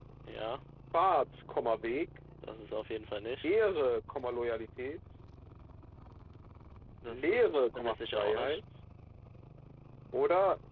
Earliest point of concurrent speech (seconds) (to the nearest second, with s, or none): 7 s